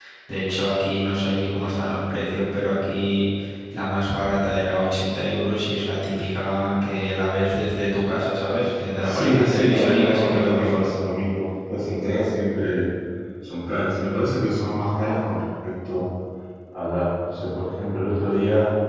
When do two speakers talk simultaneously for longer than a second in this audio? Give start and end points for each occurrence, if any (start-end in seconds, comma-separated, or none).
9.0-10.9